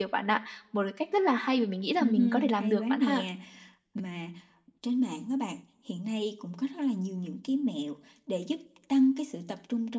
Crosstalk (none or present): present